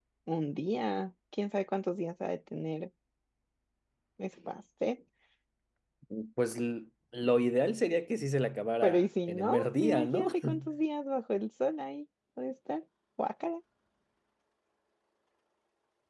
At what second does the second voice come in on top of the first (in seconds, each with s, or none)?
8.8 s